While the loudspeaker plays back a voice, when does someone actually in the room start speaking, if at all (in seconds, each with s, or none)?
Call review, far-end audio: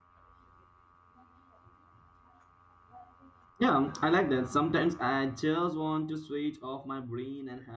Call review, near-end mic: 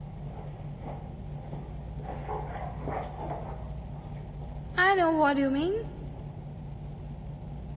4.8 s